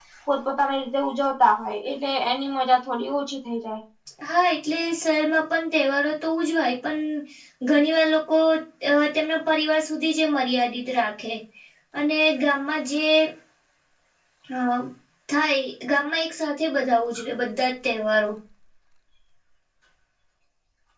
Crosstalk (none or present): none